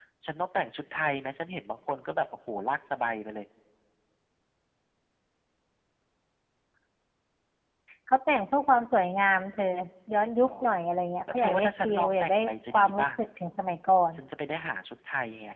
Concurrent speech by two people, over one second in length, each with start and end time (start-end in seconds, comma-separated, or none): 11.3-13.1